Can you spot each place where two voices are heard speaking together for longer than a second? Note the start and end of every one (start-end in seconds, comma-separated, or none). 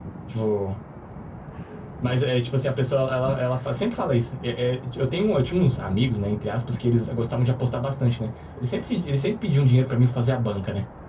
none